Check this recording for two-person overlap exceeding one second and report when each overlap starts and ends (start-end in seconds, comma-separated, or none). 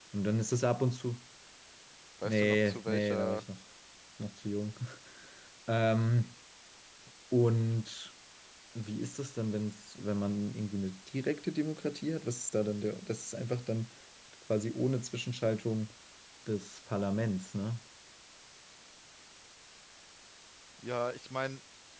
2.2-3.5